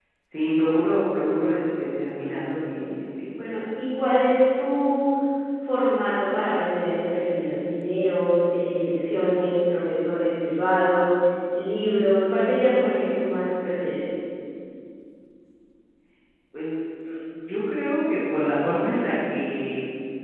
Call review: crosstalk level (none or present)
none